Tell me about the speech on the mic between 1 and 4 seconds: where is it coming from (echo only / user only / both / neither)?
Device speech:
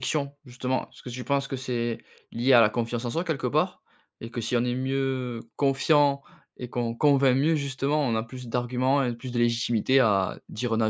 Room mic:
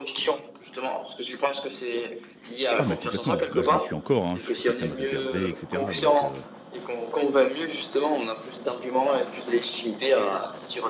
both